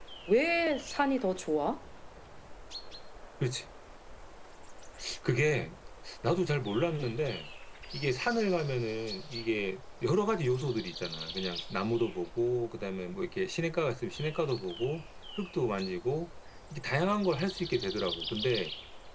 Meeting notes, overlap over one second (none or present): none